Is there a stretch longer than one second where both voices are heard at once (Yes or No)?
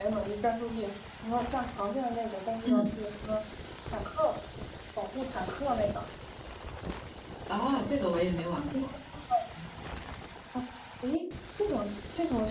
No